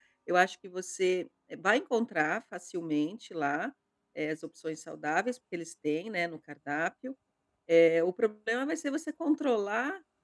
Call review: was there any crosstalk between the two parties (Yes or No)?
No